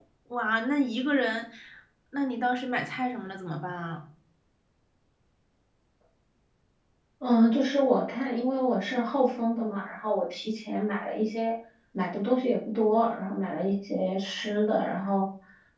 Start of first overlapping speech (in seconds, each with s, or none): none